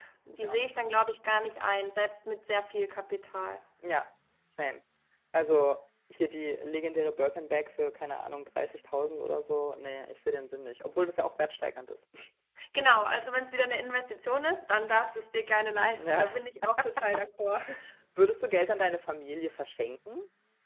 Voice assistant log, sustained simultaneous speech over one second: none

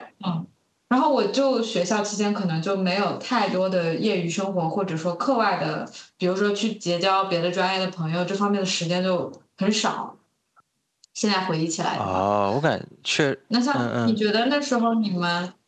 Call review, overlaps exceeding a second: none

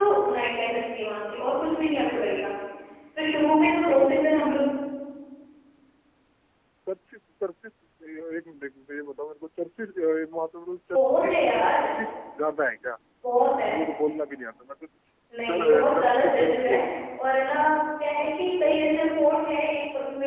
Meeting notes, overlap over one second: present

